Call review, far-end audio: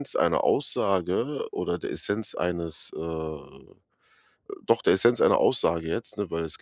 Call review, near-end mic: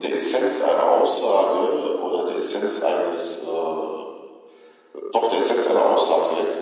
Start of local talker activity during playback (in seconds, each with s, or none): none